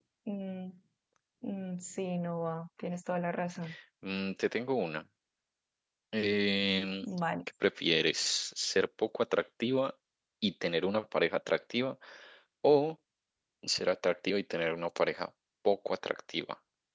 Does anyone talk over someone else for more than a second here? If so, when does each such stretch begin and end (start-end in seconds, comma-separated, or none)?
none